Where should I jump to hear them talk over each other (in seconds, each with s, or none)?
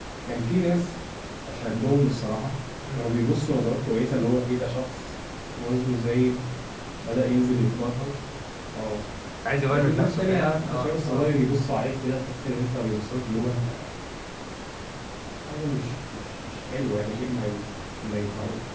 9.7 s